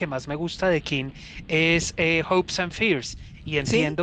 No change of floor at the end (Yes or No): Yes